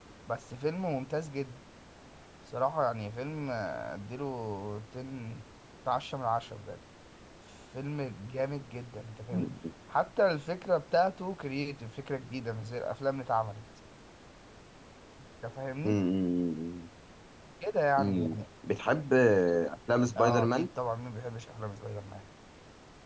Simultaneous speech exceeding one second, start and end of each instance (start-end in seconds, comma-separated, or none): none